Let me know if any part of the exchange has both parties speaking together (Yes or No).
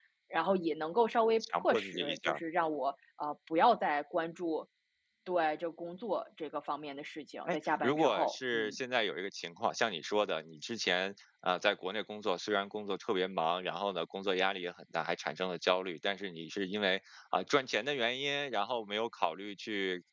Yes